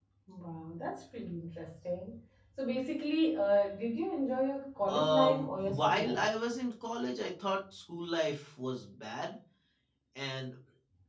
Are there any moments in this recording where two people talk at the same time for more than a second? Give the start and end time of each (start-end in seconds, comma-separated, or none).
4.9-6.3